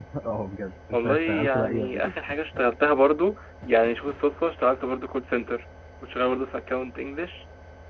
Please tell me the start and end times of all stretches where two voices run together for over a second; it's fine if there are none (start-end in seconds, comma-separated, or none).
0.9-2.1